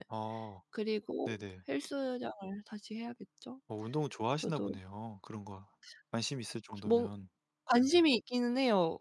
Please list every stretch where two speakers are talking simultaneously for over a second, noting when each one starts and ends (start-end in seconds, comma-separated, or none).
none